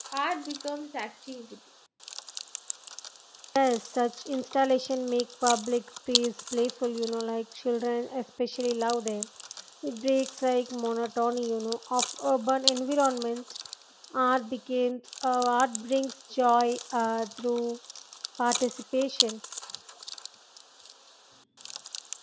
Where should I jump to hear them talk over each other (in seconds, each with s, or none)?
none